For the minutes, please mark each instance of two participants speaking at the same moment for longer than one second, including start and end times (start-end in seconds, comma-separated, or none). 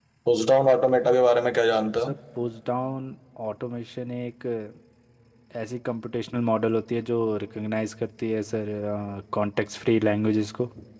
none